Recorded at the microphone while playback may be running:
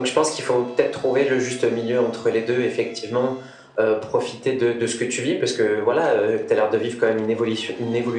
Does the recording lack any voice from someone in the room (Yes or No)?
Yes